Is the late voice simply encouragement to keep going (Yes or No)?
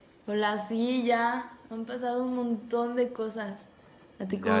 No